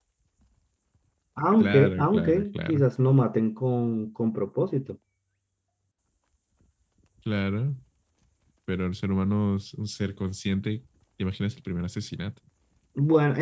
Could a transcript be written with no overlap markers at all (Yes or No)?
No